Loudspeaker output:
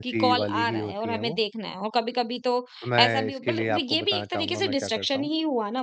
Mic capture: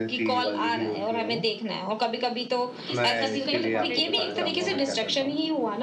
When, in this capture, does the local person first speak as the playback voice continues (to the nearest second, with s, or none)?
3 s